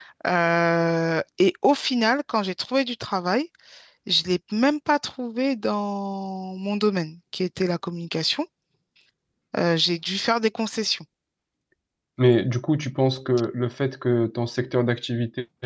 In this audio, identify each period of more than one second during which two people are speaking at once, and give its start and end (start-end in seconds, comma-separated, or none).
none